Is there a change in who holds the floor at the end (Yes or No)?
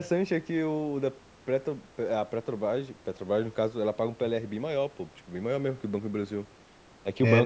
No